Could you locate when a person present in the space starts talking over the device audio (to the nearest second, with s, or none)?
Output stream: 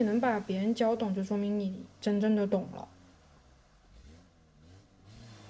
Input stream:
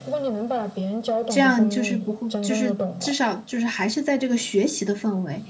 1 s